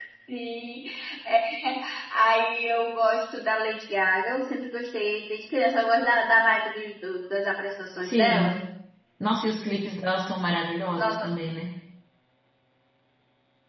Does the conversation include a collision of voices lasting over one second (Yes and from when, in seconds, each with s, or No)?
No